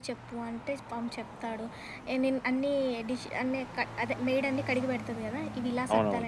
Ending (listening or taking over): taking over